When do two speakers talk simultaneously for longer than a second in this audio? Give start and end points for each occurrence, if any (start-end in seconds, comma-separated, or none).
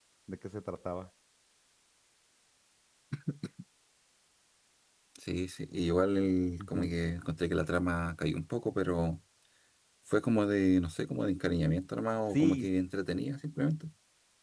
none